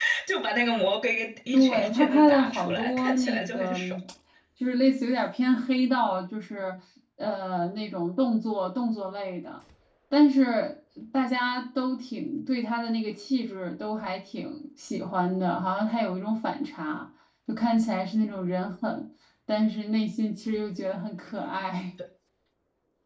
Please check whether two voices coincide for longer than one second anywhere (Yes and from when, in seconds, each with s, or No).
Yes, from 1.5 s